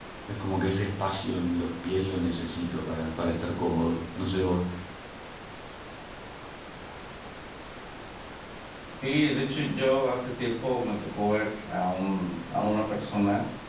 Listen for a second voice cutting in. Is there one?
No

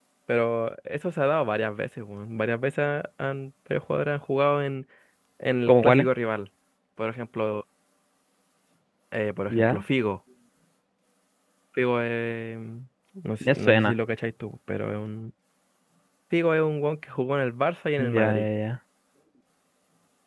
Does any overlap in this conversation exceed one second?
No

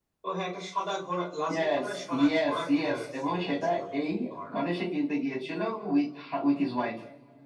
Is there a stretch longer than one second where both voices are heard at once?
Yes, from 1.5 s

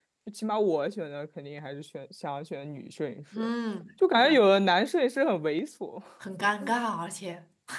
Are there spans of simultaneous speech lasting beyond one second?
No

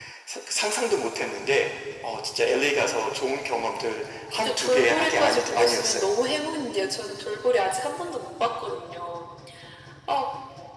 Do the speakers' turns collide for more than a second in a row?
Yes, from 4.3 s

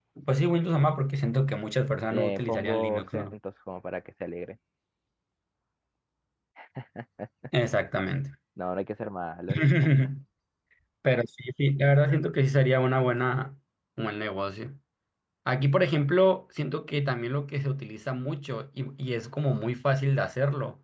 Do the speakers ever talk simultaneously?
Yes, from 2.1 s

